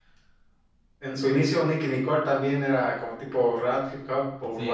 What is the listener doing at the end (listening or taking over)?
taking over